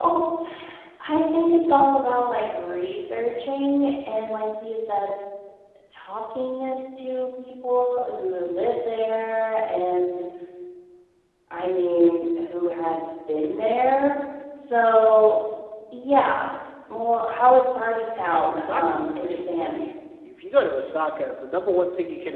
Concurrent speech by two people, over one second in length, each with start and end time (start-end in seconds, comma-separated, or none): 18.3-19.8